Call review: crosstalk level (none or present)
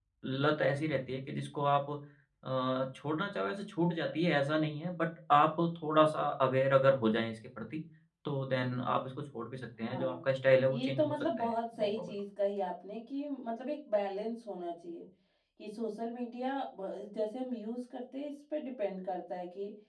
present